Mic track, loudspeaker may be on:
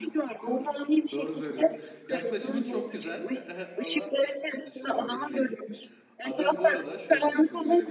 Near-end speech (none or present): present